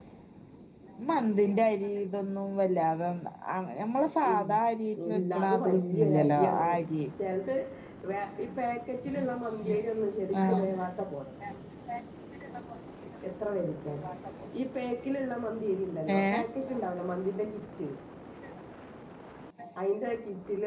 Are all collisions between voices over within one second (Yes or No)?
No